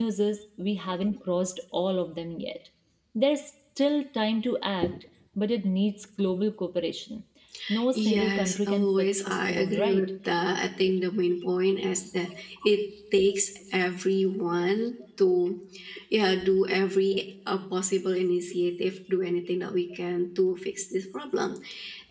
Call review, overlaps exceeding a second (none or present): present